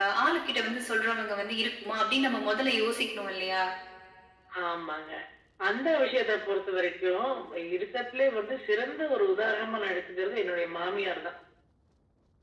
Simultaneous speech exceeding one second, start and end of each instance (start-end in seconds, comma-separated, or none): none